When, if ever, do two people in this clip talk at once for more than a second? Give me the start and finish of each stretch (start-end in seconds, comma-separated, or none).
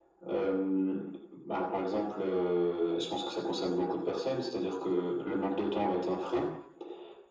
none